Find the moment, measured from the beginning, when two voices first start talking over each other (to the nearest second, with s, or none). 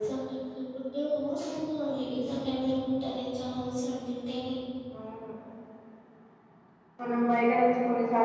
none